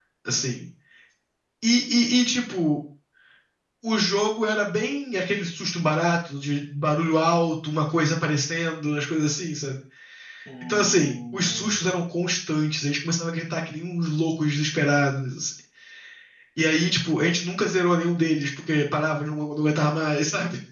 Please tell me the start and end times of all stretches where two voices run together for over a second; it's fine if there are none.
10.6-12.0

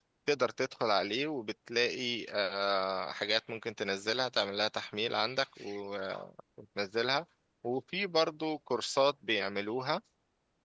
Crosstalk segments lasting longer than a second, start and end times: none

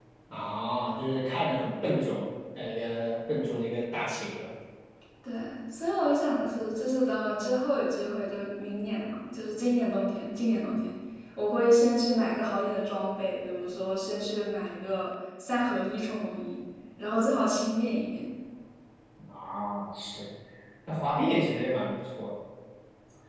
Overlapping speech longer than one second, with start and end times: none

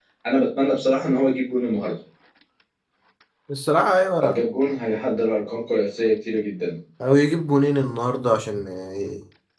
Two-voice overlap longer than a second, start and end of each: none

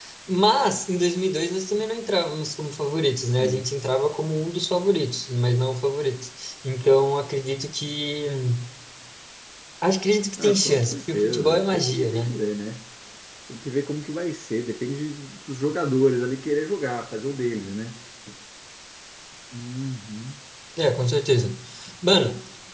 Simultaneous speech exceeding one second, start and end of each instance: 10.4-12.4

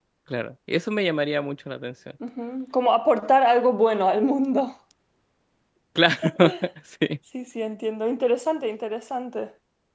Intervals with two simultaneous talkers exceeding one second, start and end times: none

